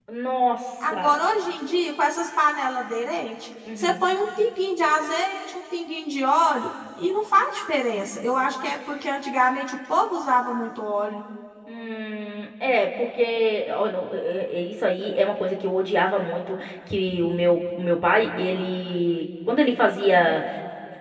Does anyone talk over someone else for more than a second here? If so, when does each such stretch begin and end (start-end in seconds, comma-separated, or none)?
none